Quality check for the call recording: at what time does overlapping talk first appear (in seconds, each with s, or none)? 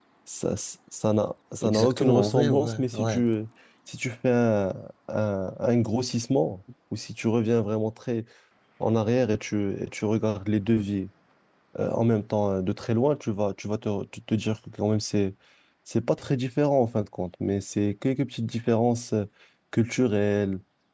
1.6 s